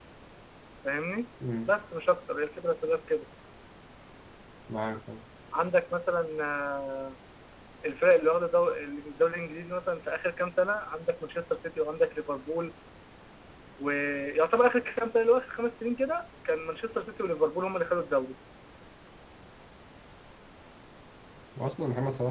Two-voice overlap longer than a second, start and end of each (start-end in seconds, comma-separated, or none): none